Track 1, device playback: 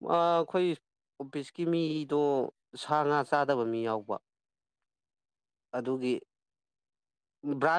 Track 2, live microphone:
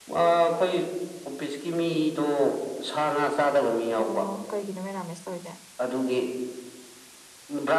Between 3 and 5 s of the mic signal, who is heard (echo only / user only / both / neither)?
both